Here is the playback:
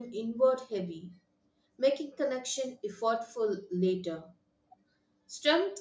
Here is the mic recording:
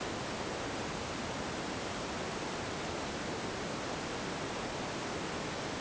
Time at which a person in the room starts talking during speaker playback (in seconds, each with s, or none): none